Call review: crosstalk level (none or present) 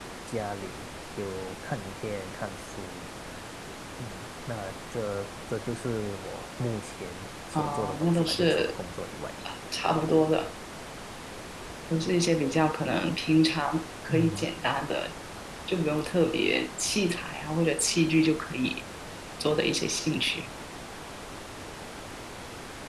present